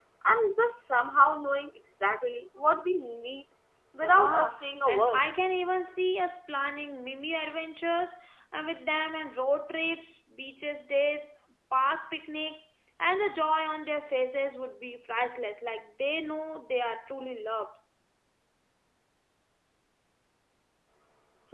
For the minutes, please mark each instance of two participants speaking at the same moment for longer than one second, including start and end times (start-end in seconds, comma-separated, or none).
4.0-5.2